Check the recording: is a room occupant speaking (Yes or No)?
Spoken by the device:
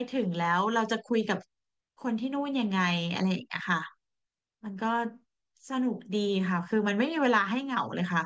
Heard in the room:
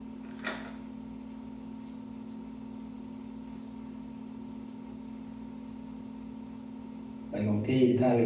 Yes